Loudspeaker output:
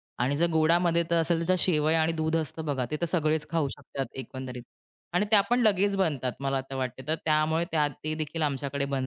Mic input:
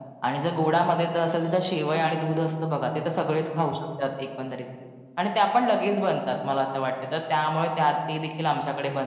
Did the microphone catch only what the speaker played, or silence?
Yes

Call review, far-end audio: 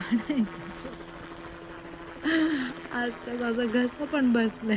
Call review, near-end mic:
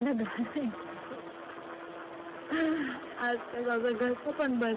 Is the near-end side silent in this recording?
Yes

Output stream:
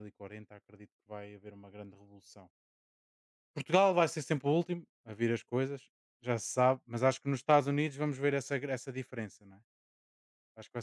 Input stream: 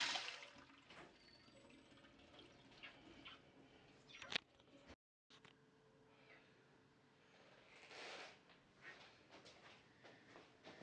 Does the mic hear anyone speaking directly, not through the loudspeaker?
No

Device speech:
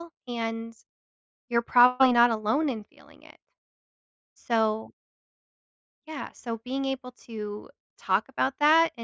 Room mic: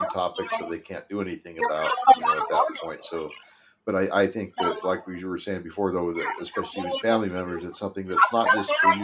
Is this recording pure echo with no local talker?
No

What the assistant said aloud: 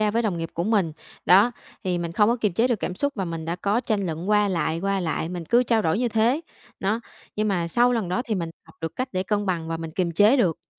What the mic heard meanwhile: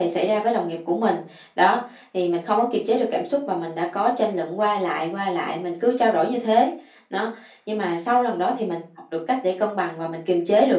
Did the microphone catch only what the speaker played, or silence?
Yes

